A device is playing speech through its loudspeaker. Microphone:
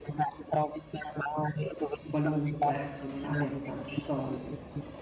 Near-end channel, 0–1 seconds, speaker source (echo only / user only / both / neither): echo only